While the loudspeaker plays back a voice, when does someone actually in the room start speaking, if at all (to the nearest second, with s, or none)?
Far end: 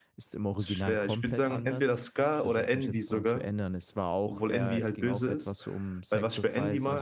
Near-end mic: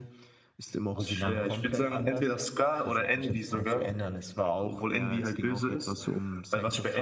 none